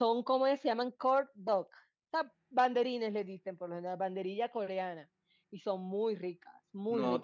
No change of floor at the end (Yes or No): No